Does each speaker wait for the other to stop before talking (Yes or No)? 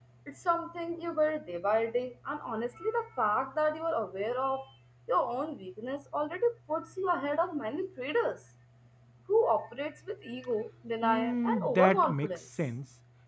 No